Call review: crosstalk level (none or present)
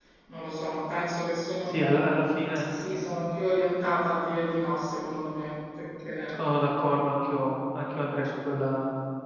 none